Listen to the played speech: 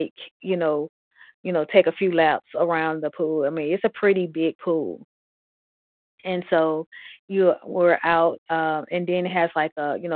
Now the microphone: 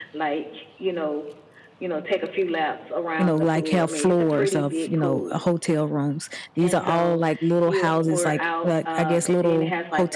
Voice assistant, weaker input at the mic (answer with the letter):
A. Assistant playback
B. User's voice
A